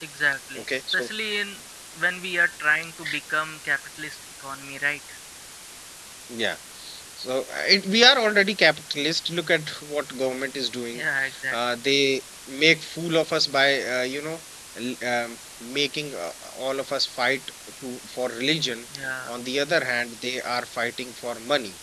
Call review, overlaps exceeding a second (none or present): none